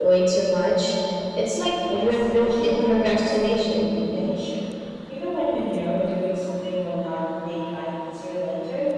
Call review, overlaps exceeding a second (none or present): present